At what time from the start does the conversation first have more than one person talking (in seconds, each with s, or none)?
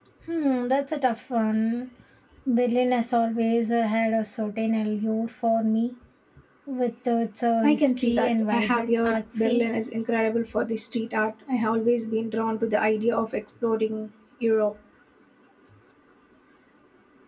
7.6 s